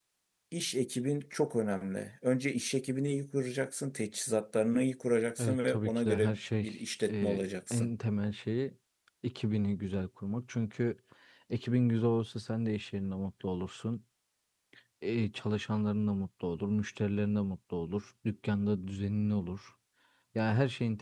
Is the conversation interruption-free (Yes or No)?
No